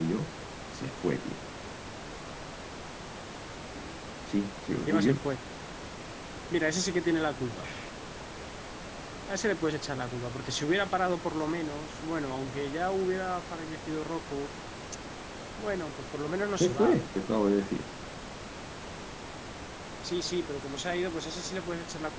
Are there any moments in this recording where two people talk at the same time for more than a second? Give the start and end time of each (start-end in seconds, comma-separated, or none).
none